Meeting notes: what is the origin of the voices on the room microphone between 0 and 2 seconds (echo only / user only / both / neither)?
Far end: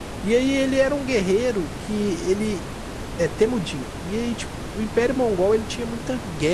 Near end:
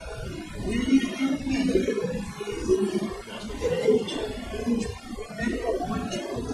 echo only